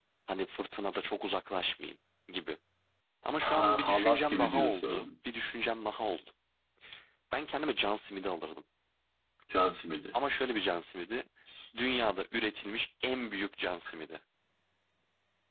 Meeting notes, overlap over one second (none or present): present